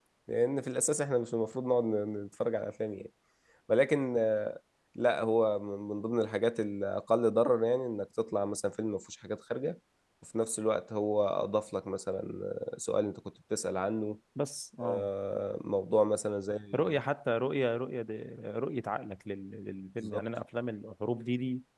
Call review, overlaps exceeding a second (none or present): none